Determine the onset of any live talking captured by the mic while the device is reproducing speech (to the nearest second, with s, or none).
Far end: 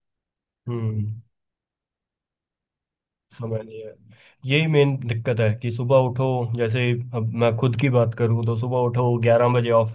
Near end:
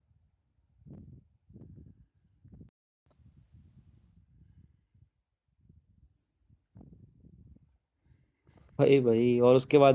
9 s